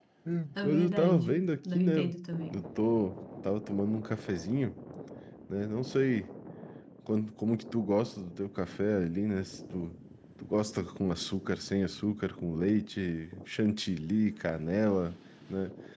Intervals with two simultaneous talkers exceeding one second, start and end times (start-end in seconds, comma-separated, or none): 0.6-1.9